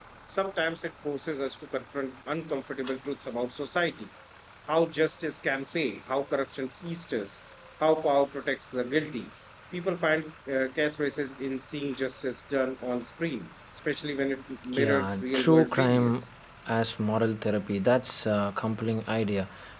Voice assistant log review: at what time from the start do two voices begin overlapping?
15 s

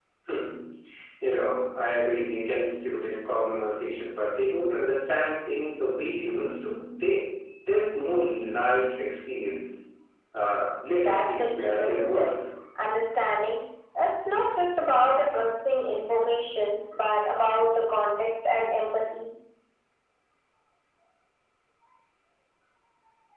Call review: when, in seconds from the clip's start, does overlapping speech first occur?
11 s

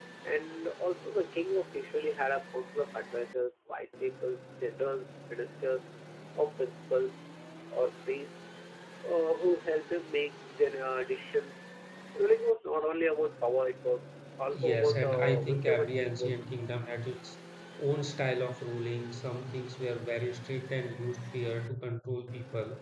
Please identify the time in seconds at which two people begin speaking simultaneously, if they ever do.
15 s

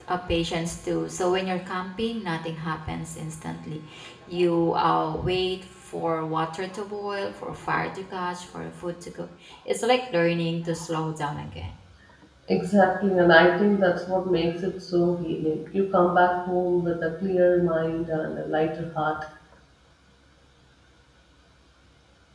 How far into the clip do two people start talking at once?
none

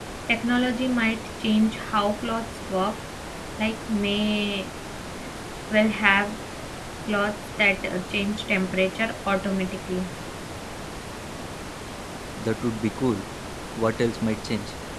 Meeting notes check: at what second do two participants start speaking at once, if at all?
none

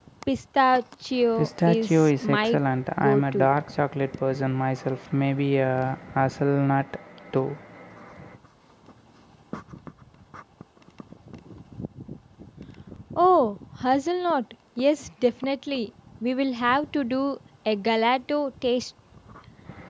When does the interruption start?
1 s

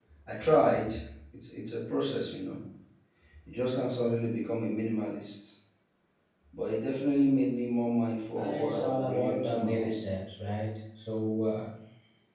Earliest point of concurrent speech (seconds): 8 s

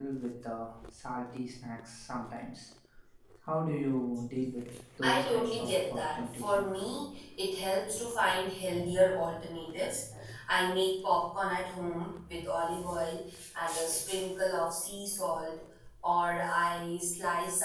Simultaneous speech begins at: 5 s

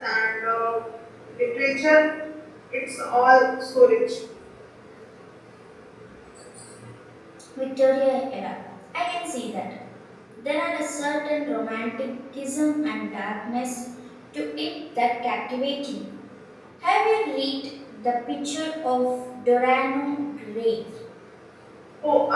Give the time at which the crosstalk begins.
none

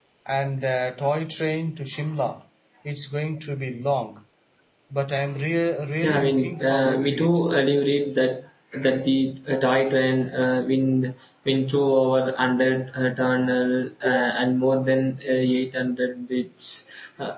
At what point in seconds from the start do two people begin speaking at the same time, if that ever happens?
6 s

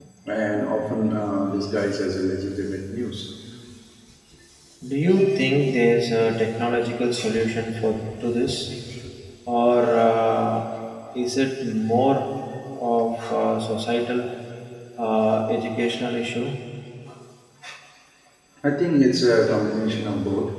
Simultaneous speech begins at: none

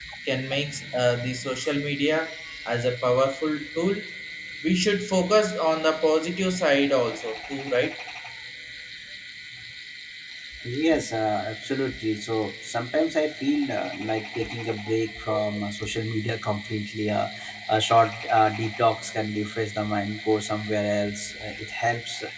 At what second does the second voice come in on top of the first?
none

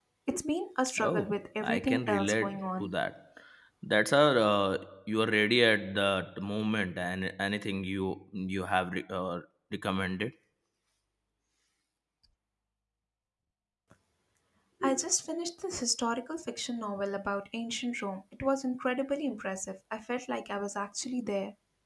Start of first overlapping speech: 1 s

